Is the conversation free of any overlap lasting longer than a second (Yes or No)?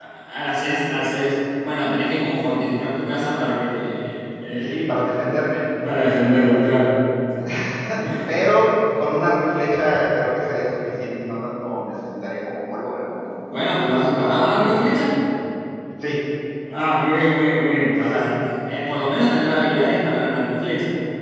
Yes